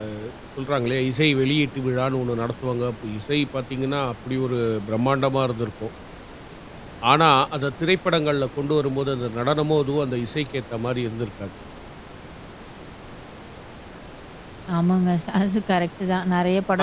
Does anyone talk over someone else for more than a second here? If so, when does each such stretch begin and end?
none

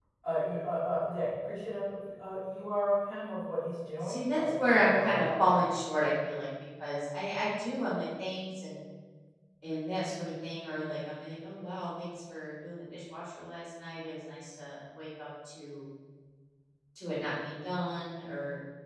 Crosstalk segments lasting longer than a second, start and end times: 4.0-5.5

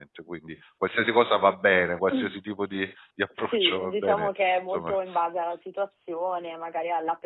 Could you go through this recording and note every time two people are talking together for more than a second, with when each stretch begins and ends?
3.4-4.9

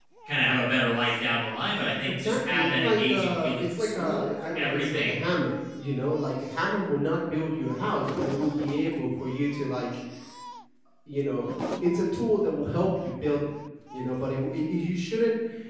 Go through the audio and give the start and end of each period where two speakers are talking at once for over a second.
2.1-5.2

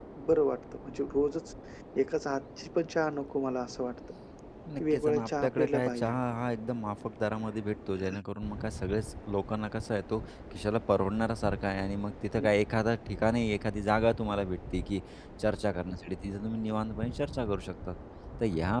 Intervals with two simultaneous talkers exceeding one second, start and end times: 4.9-6.1

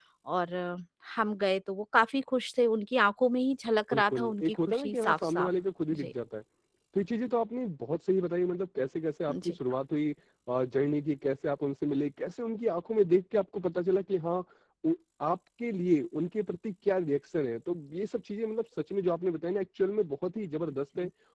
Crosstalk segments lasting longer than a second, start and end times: 3.9-5.5

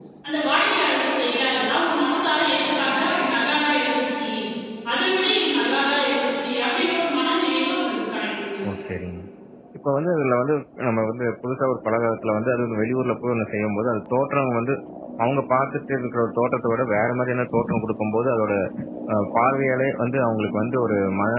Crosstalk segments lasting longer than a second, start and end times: none

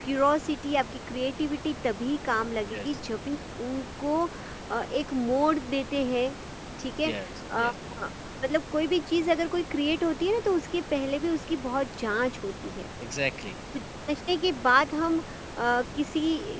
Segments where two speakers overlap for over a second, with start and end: none

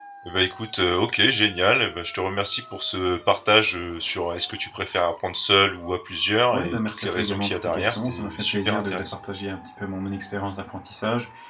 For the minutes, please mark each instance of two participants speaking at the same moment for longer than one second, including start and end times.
6.5-9.2

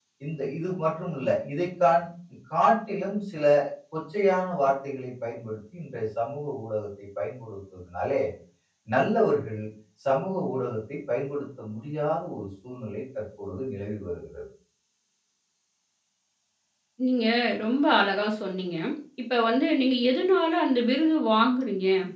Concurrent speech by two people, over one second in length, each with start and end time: none

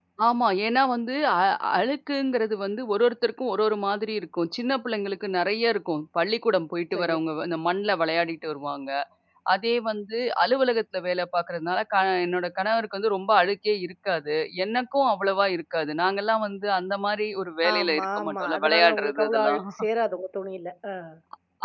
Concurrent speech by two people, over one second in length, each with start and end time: 17.7-19.6

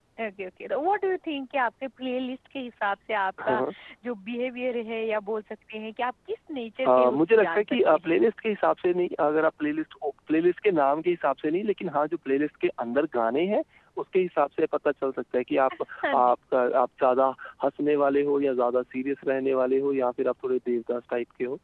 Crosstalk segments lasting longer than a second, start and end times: 6.9-8.2

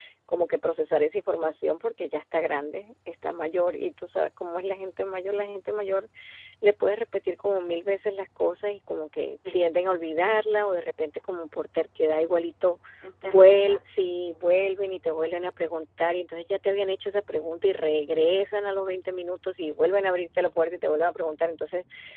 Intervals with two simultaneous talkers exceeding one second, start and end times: 13.2-14.4

